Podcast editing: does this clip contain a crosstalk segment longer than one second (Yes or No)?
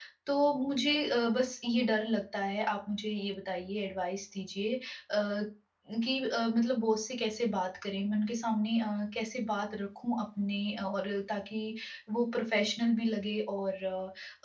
No